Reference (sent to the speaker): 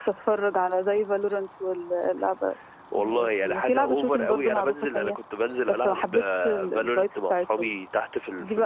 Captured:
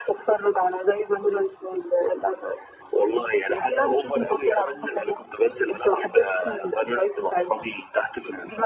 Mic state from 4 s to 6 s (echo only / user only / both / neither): echo only